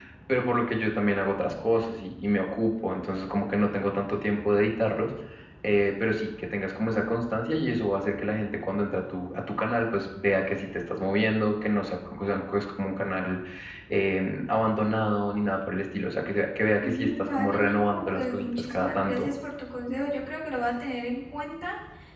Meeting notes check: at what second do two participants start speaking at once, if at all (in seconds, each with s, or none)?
16.8 s